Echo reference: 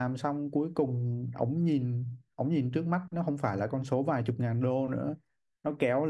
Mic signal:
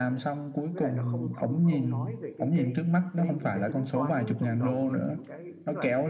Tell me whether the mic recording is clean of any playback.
No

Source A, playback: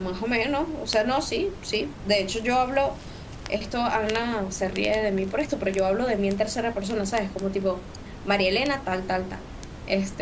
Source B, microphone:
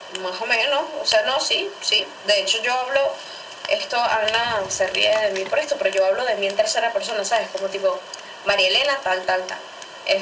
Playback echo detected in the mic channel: Yes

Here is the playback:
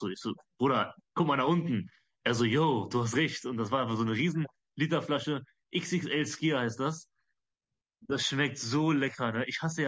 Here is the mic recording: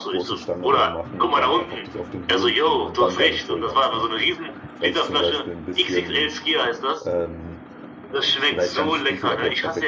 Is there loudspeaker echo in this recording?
Yes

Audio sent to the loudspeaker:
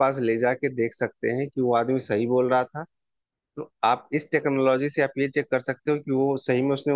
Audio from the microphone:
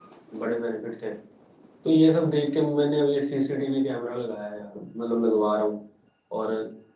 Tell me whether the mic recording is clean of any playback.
Yes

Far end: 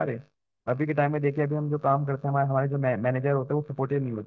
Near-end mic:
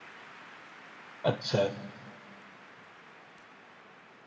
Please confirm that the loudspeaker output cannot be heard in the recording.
Yes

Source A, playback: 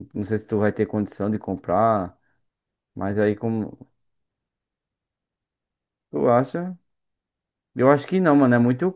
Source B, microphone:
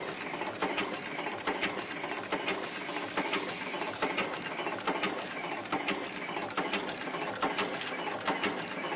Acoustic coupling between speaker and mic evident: No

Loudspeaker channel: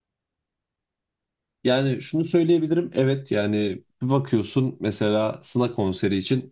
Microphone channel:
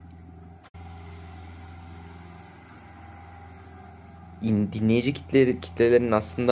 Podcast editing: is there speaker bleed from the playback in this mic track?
No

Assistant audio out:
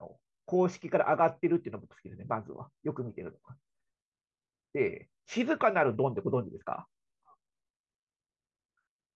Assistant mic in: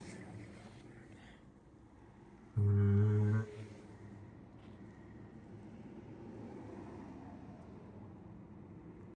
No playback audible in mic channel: Yes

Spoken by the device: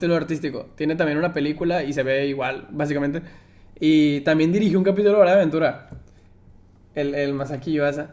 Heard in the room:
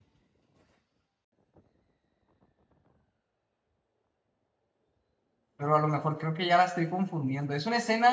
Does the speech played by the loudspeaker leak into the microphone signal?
No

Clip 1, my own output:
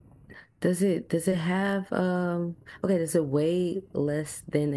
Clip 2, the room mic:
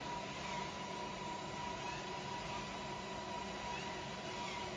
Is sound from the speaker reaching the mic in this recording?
No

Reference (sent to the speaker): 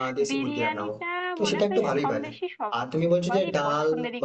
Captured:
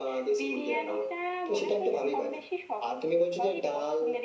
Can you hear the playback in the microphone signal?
Yes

